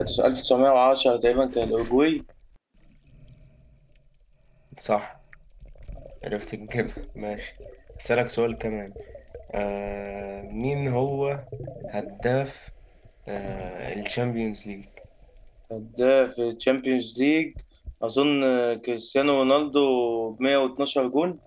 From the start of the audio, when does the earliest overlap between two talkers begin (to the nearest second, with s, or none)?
none